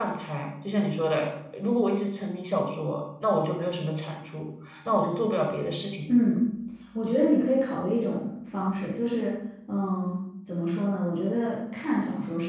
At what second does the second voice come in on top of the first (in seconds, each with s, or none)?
none